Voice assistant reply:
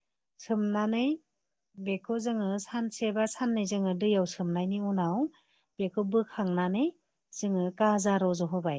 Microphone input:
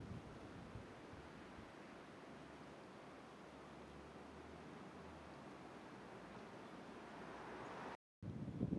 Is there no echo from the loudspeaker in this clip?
Yes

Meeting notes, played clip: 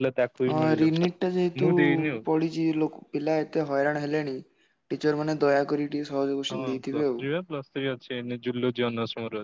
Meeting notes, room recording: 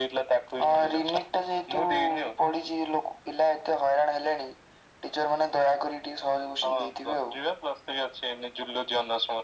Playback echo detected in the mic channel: Yes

